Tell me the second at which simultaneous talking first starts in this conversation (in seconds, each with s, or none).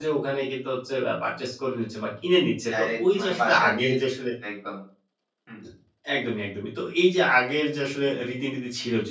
2.7 s